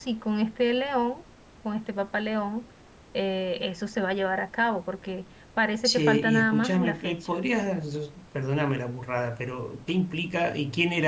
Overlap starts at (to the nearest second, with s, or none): 6 s